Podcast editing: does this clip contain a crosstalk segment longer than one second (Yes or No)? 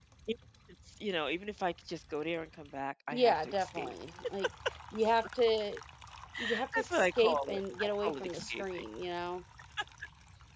Yes